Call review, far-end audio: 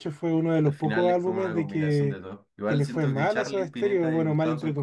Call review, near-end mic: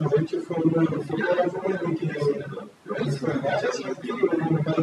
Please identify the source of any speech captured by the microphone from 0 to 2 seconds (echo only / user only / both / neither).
echo only